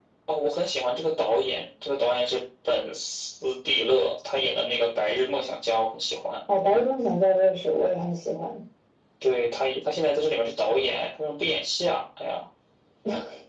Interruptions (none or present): none